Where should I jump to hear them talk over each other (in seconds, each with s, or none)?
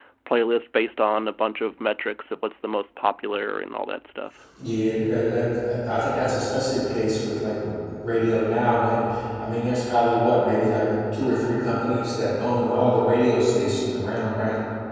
none